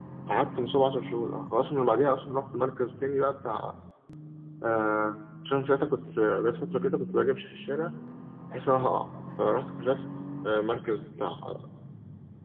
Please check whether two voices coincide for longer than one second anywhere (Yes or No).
No